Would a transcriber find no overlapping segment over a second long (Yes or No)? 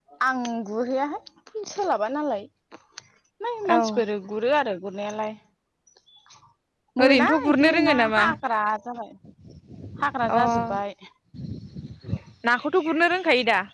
No